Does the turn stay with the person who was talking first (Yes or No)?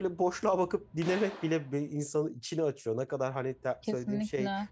Yes